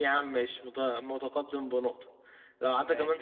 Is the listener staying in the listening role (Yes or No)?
Yes